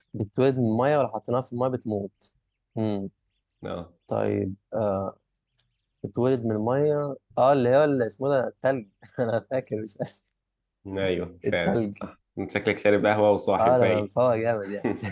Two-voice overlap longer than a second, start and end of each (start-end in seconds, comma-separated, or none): none